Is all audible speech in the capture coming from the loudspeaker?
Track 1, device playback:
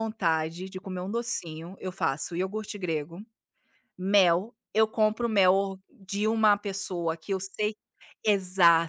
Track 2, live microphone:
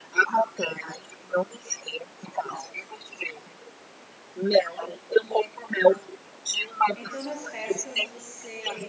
No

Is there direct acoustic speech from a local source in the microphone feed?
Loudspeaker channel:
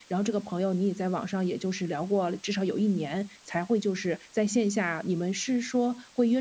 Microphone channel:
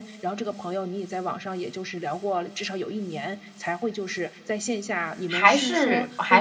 Yes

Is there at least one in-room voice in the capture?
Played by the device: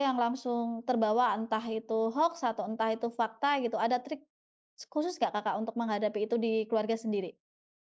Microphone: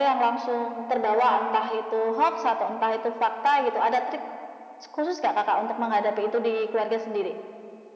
No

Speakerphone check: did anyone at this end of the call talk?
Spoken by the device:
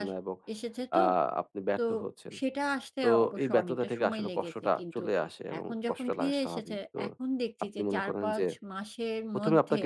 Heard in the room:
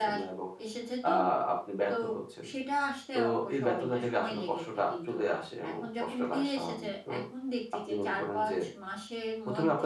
No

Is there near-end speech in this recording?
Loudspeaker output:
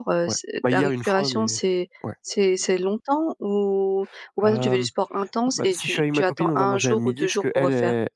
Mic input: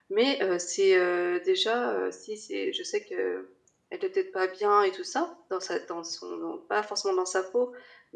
Yes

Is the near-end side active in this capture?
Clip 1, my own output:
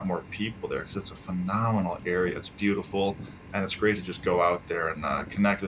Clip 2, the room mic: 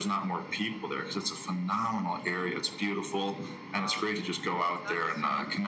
Yes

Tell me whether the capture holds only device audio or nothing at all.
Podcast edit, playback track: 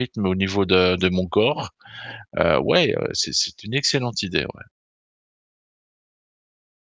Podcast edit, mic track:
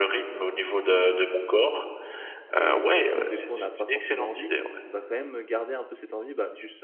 No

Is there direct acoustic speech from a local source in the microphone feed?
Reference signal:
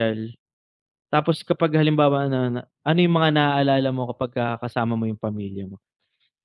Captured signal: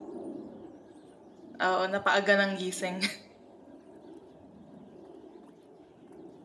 Yes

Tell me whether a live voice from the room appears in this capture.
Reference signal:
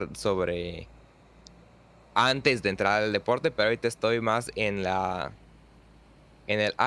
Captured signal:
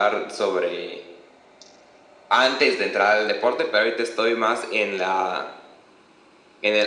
No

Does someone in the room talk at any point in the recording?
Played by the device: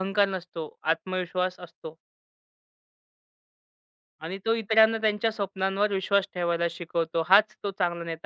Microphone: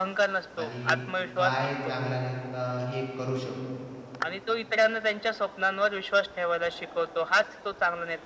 Yes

